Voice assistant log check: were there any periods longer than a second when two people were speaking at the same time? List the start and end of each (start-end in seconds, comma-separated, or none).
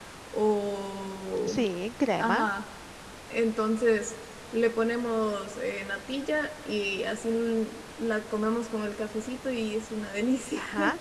none